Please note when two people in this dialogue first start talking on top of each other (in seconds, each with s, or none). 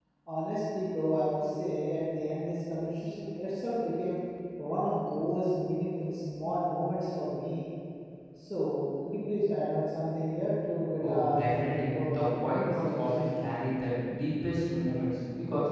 11.0 s